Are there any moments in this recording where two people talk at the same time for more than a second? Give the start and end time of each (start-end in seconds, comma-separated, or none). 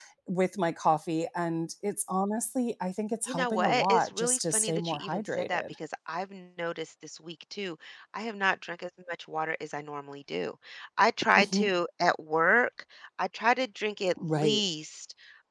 3.3-5.6